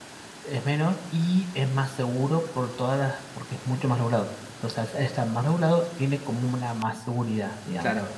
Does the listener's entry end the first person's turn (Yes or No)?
Yes